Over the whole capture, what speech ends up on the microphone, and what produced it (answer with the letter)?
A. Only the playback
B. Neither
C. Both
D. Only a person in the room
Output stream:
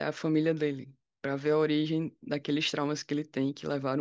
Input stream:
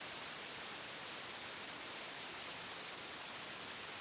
B